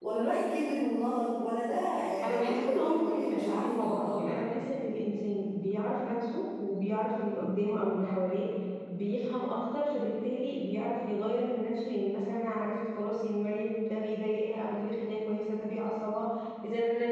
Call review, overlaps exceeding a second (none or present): present